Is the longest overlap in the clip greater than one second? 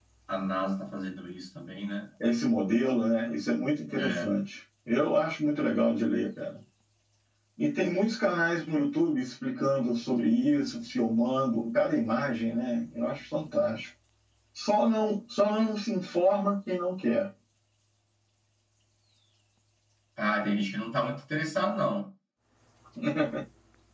No

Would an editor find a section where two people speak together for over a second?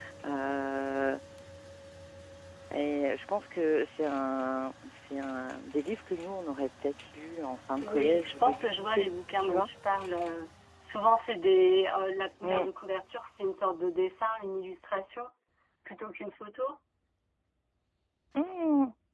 Yes, from 7.8 s

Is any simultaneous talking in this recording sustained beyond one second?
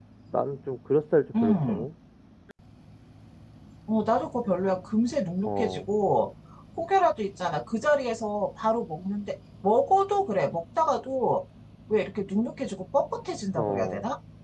No

